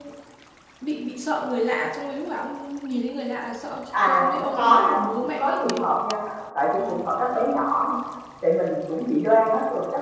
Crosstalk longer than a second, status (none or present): present